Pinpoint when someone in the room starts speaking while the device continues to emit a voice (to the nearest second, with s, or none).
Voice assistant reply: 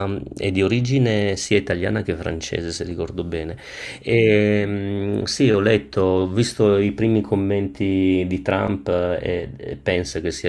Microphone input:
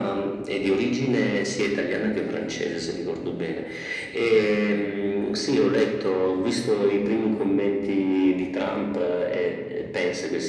none